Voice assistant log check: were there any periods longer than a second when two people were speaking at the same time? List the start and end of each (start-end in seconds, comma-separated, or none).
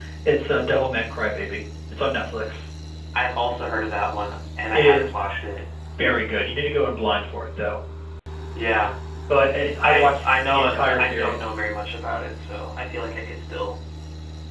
9.8-11.5